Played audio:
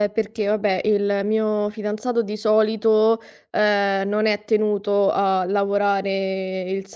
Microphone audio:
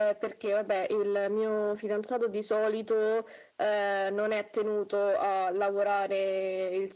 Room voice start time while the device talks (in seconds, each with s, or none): none